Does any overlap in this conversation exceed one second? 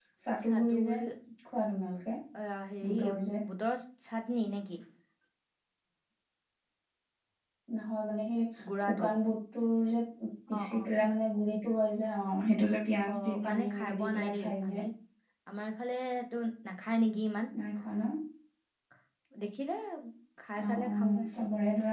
Yes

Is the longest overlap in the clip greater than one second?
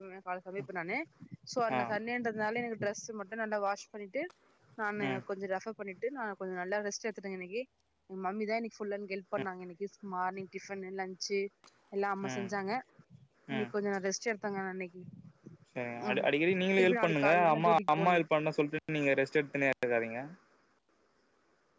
Yes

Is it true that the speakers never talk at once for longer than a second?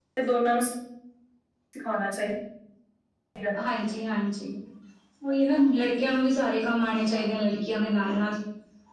Yes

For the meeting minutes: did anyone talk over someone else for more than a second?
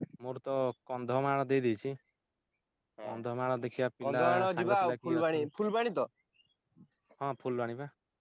Yes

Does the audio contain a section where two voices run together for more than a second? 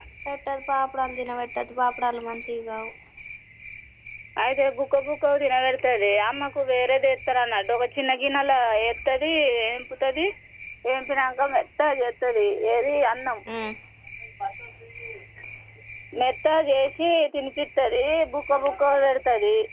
No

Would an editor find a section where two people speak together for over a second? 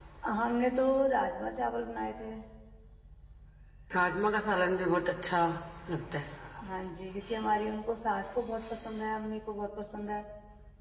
No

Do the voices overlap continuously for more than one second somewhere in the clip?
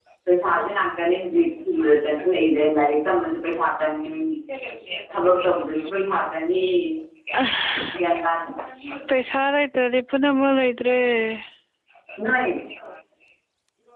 No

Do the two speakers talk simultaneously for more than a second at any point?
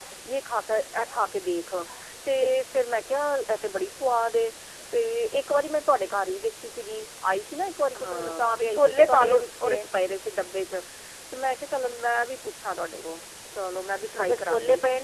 Yes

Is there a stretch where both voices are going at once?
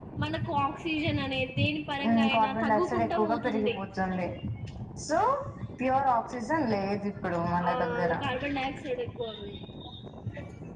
Yes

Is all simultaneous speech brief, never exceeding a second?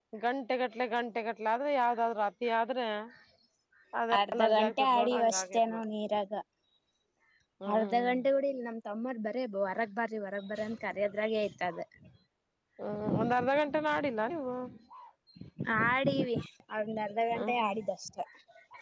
No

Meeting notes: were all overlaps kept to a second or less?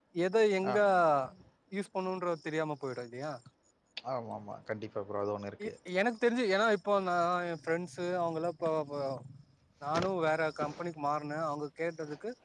Yes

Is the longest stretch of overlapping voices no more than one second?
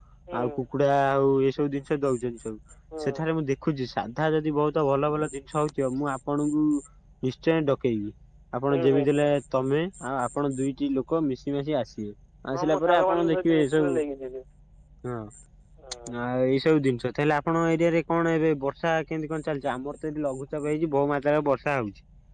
No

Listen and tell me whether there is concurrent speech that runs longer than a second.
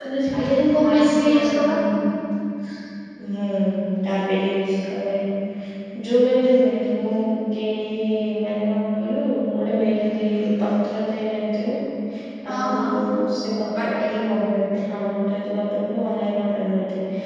Yes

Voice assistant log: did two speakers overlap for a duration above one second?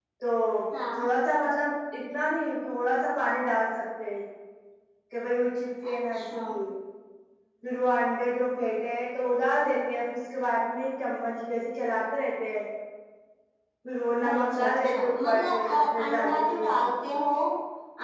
Yes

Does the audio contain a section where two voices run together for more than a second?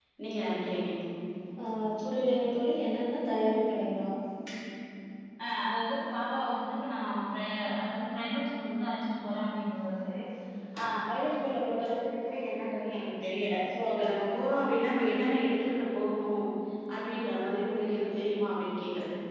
No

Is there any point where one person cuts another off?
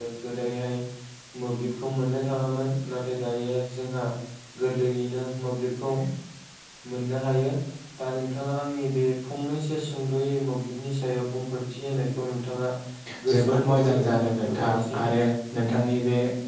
Yes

